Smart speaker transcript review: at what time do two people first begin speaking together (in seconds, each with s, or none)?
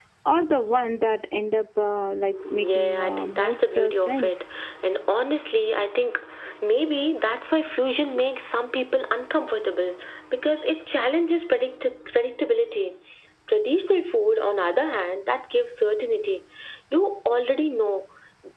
2.6 s